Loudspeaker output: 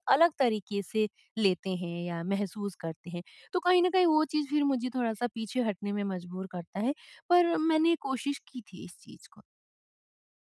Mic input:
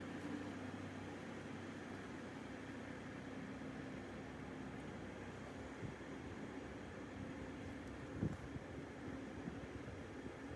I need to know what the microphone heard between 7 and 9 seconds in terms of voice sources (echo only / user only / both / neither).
neither